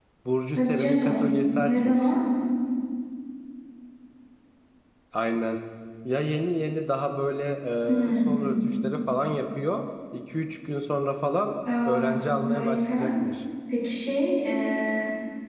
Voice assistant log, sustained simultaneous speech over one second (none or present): present